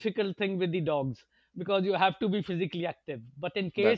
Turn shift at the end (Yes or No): No